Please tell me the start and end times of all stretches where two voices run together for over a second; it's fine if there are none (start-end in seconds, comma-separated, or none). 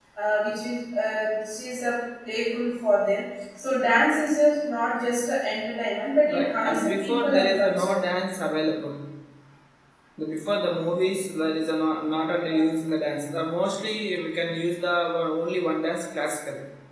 6.3-8.0